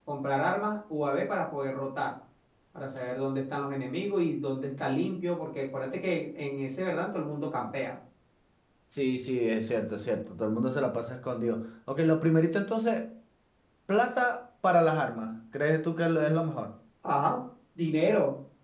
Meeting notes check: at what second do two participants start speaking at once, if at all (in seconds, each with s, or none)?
none